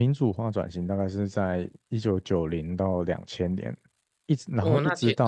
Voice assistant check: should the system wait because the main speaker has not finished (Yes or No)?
No